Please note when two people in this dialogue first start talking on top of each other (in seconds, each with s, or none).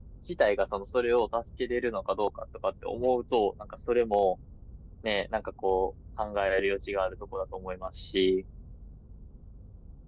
none